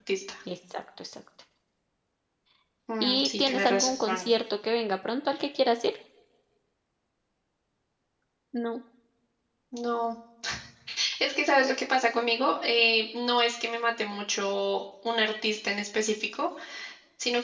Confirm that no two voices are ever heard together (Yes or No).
No